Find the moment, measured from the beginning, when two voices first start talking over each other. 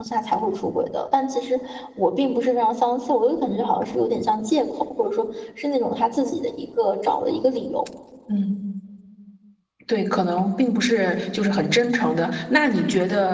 none

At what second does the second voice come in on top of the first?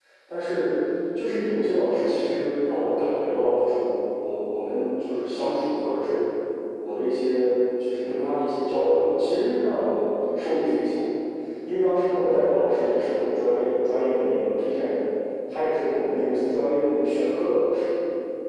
none

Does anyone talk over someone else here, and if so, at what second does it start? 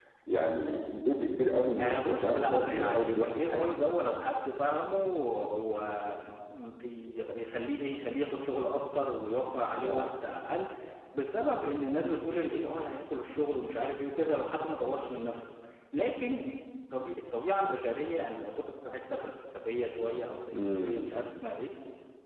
1.8 s

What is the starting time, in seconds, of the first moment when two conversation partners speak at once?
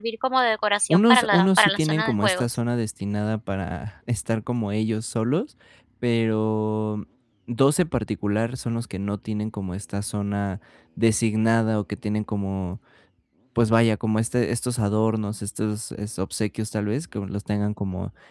0.9 s

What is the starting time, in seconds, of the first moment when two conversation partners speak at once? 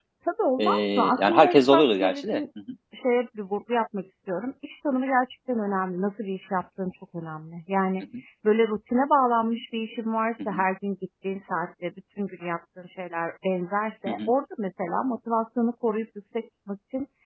0.6 s

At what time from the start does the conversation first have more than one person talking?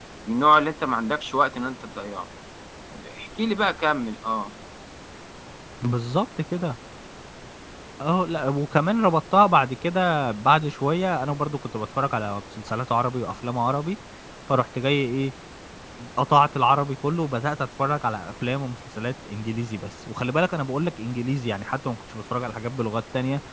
none

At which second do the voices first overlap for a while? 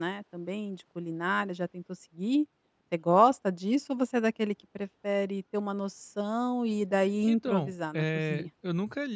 7.3 s

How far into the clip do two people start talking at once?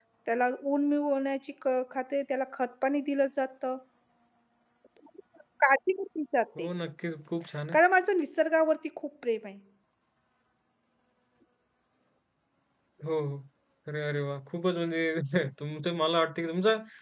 none

